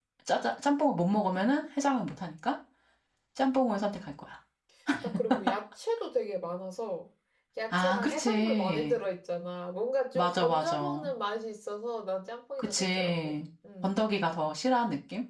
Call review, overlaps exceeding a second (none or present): present